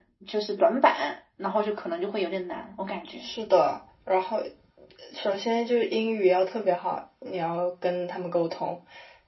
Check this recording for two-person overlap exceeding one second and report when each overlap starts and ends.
none

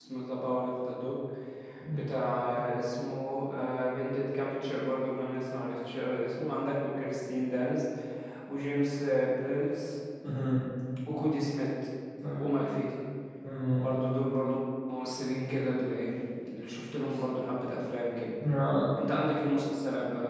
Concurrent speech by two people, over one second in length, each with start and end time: none

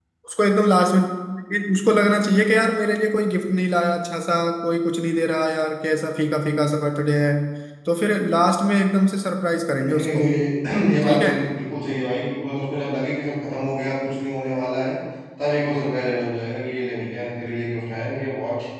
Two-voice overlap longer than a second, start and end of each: none

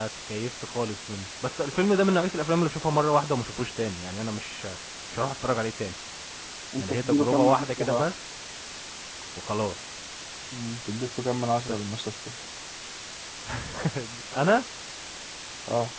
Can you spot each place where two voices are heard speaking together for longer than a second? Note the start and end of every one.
6.8-8.0

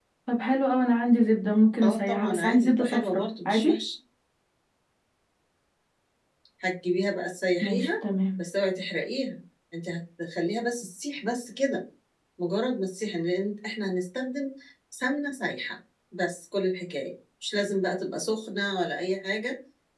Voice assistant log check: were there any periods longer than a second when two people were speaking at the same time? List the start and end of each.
1.8-3.8

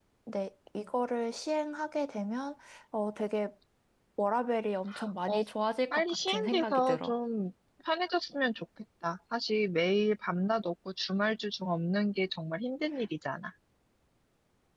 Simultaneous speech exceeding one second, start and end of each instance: 5.9-7.2

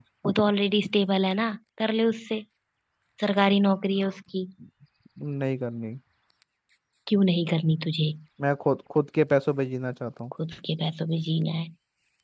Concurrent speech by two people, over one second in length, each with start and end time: none

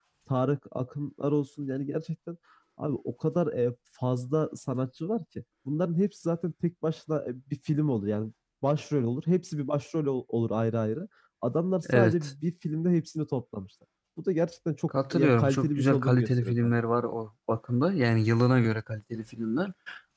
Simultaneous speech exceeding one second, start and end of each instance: 15.1-16.7

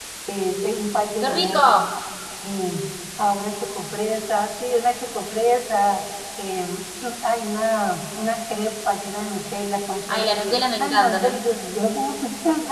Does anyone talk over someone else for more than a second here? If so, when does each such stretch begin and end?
10.1-11.3

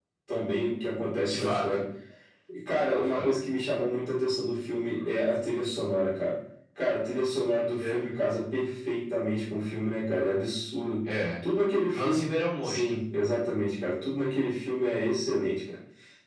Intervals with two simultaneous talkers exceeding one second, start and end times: none

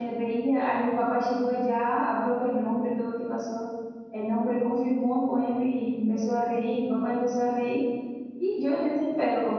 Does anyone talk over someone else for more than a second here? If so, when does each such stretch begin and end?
none

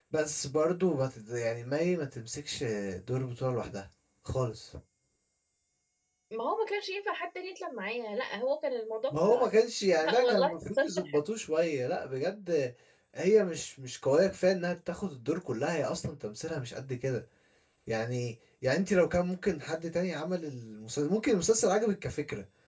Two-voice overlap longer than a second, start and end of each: 10.0-11.2

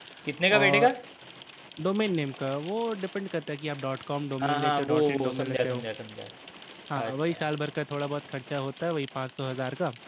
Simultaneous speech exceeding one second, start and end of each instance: 4.4-5.8

